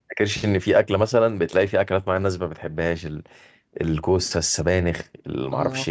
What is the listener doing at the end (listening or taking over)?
listening